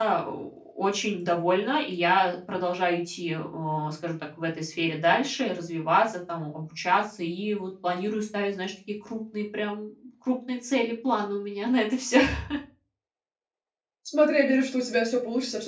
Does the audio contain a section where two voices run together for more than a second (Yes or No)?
No